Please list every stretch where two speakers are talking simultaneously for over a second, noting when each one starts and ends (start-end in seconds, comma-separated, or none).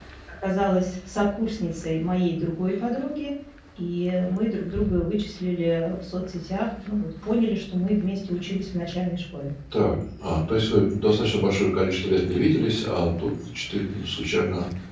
none